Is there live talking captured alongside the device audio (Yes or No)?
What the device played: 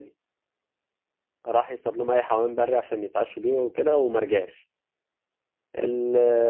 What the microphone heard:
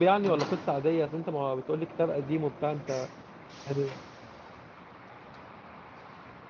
Yes